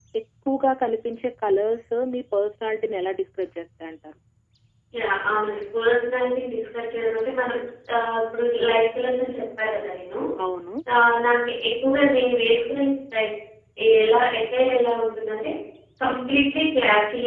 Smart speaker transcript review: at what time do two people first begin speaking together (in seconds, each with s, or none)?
none